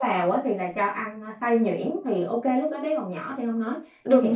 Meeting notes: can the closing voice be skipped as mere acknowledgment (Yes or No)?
Yes